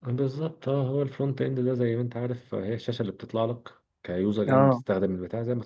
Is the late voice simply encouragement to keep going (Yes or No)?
Yes